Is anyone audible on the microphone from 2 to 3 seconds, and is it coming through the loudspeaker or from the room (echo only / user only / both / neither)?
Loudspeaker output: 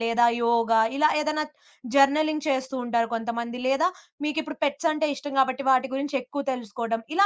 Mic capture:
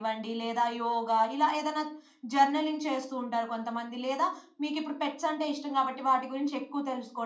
echo only